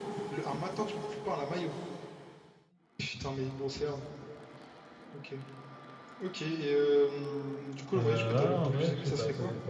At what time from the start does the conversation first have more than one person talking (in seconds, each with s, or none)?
7.9 s